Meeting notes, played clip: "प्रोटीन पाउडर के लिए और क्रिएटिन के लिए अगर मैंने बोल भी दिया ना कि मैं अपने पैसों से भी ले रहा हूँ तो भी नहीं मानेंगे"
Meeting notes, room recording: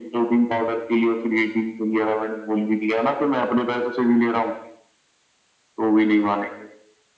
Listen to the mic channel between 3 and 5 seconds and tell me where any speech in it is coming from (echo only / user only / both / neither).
echo only